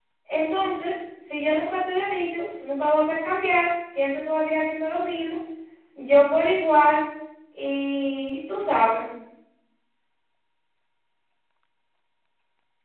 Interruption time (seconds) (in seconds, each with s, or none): none